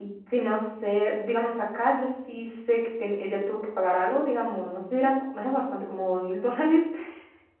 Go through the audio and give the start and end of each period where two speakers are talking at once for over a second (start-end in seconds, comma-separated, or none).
none